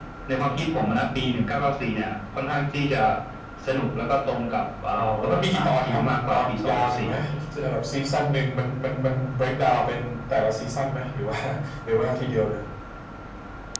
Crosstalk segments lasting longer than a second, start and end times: 4.9-7.1

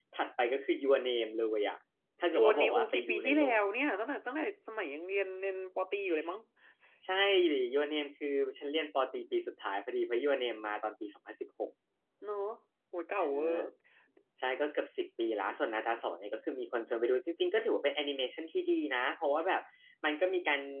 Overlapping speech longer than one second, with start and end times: 2.3-3.6

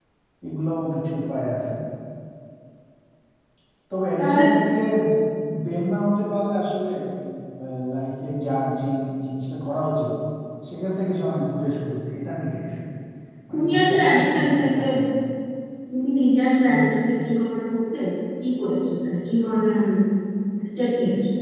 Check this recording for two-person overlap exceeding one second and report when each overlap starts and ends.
13.5-14.8

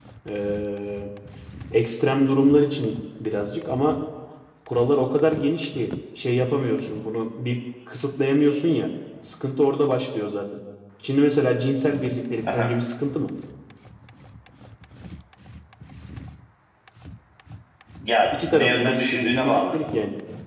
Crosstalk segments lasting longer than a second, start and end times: 18.3-19.8

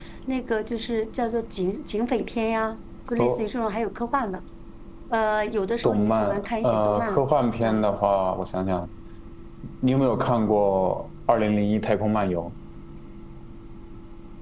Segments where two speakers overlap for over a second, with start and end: 5.8-7.2

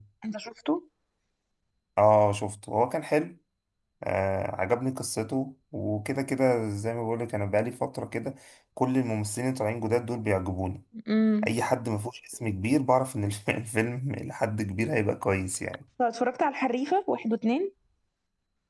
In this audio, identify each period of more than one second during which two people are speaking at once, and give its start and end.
none

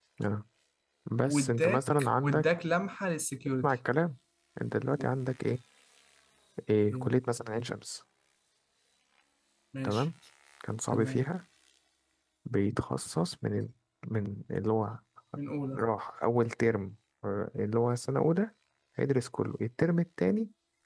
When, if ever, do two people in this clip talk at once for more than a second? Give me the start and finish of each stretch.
1.2-2.5

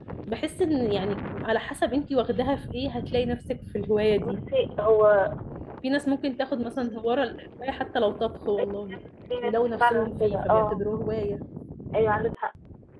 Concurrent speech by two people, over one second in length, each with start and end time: 9.4-10.8

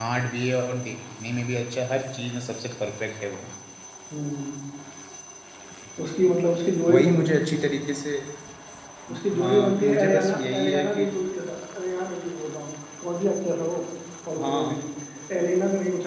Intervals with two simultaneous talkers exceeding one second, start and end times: 9.4-11.1

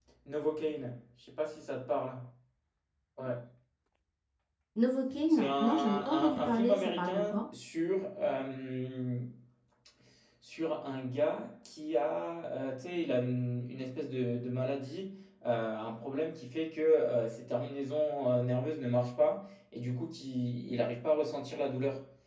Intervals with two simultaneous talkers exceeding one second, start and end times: 5.3-7.5

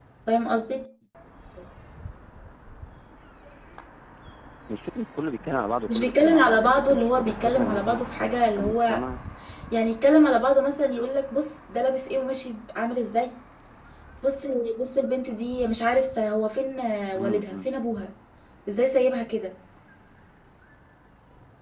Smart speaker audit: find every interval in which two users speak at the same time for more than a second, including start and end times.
5.9-8.0

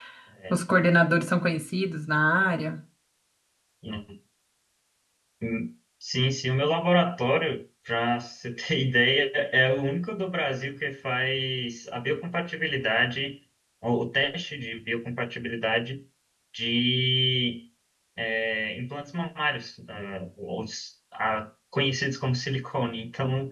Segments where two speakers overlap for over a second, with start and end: none

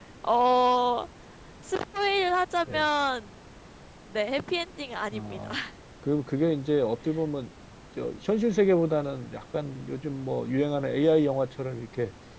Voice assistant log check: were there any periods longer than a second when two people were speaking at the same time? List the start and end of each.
none

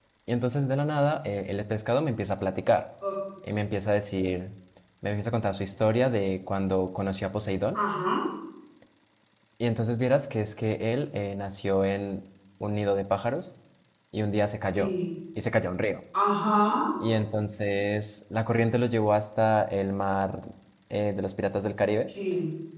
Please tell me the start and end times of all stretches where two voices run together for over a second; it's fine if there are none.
none

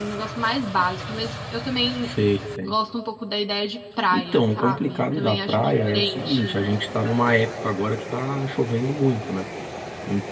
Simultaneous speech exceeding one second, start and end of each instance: 4.1-6.6

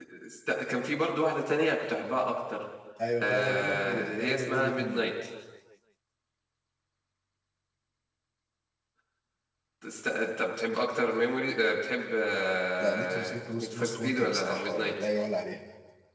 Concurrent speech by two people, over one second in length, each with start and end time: 3.2-5.1, 12.8-14.9

